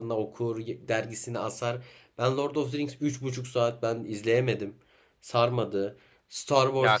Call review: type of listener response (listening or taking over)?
taking over